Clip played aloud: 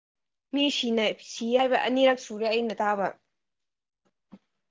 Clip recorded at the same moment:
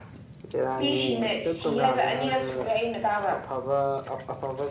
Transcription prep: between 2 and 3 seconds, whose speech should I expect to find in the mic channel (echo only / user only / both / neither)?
both